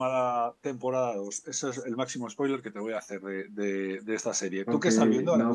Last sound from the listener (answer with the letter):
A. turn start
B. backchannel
A